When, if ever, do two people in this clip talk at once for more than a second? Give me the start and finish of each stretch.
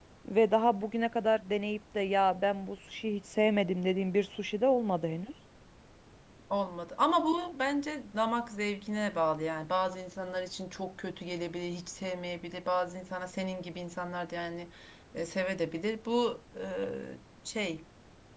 none

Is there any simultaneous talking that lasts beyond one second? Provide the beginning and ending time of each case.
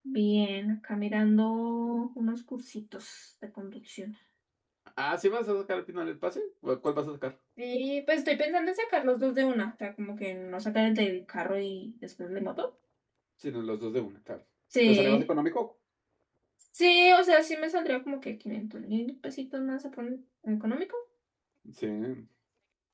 none

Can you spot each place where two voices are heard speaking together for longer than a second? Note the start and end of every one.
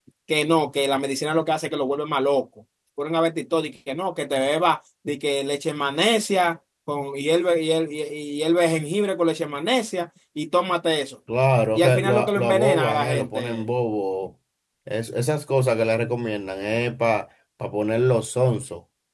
11.8-13.7

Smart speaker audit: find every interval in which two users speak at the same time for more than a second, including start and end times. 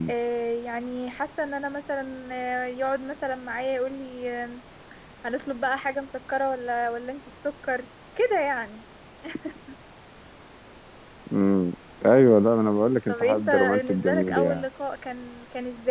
13.1-14.6

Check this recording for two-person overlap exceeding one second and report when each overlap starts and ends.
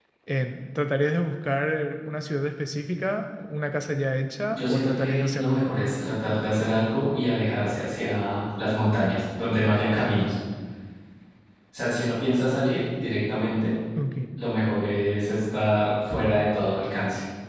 4.5-5.9

